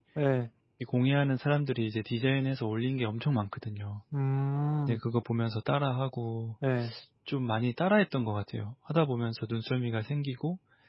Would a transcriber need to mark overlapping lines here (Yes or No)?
No